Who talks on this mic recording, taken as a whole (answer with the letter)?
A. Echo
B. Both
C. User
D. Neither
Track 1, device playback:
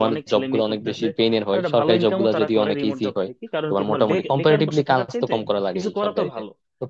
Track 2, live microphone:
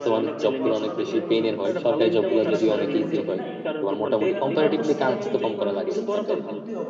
B